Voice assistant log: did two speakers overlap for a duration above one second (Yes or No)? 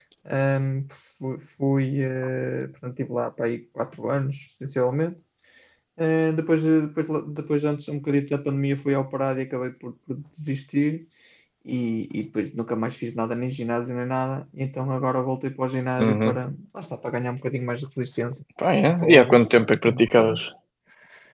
Yes